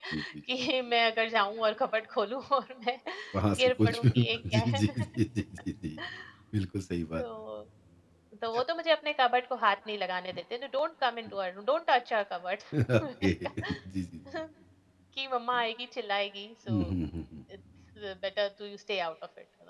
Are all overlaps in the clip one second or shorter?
No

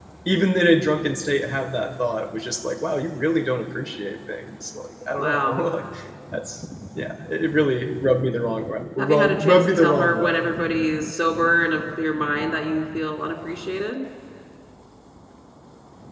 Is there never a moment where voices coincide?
No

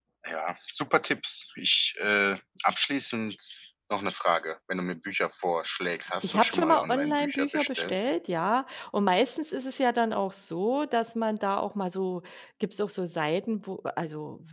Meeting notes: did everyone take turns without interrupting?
No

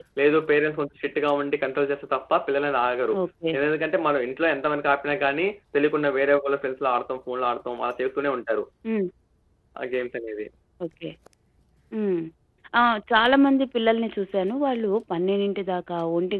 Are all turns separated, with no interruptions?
Yes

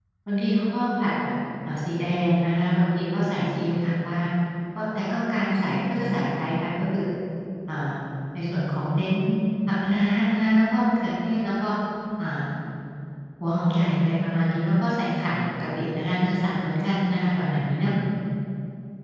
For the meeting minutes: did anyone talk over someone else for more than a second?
No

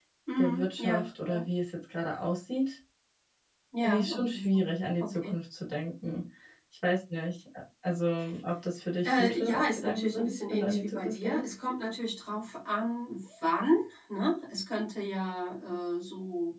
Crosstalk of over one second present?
Yes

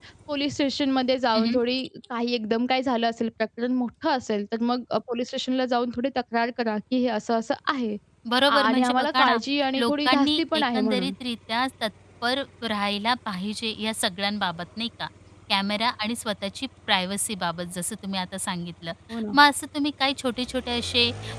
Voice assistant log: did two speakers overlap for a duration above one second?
Yes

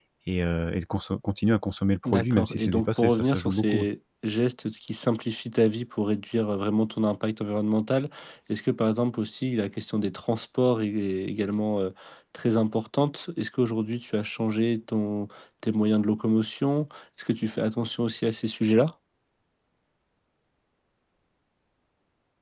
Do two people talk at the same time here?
Yes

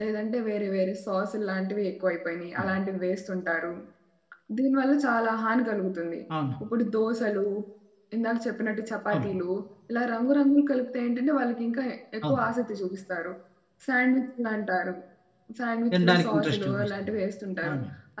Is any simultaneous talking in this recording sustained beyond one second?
Yes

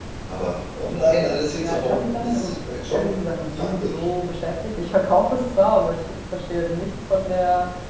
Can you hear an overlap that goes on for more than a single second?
Yes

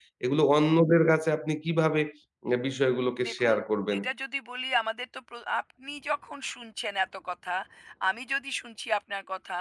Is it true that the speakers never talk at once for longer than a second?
Yes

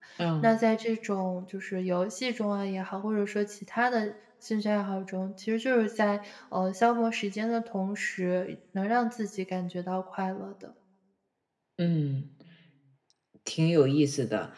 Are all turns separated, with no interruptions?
Yes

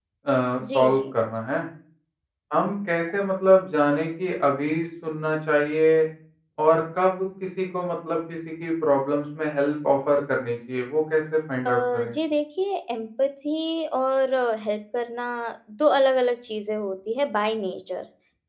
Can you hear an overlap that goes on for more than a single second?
No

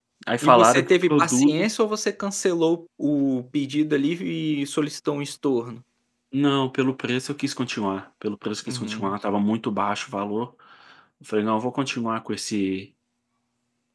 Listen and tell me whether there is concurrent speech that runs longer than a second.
Yes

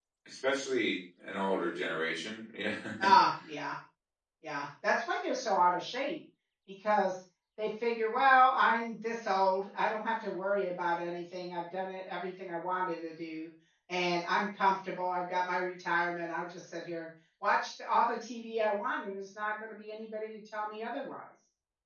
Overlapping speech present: No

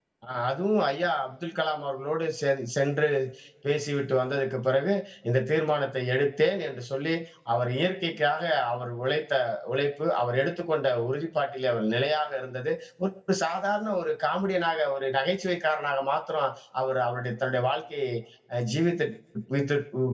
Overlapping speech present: No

